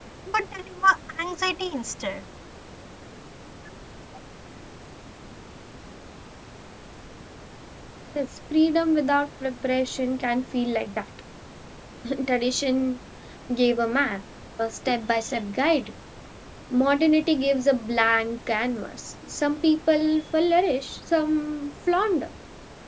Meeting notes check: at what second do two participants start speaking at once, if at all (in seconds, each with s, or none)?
none